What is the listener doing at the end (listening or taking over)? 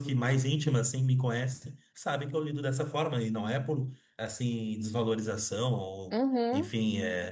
listening